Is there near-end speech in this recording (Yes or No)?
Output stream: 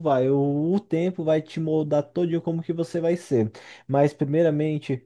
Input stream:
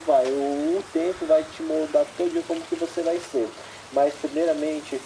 No